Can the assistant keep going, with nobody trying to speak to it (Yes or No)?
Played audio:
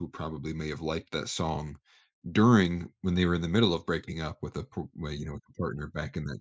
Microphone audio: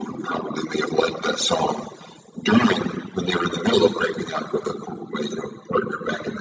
Yes